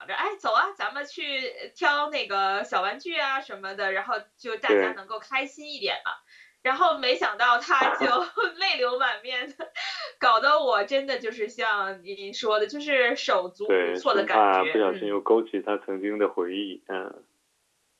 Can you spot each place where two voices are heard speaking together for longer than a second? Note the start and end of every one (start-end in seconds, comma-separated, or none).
13.7-15.1